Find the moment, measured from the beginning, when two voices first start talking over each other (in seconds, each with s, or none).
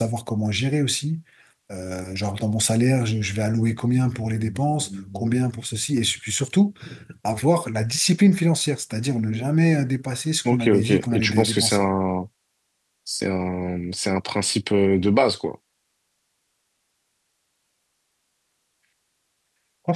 10.4 s